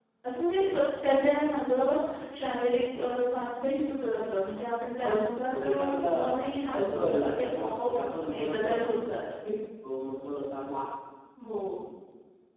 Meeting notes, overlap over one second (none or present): present